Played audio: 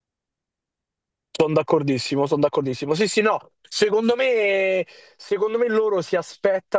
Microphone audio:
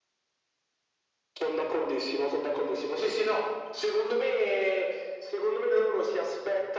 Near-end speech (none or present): none